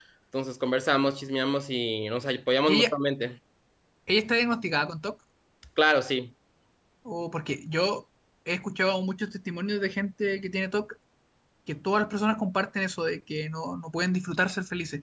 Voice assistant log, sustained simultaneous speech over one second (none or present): none